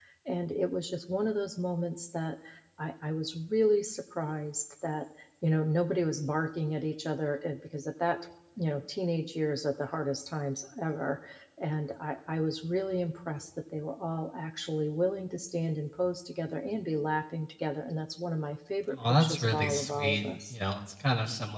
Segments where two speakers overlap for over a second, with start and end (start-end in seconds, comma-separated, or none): 18.9-20.5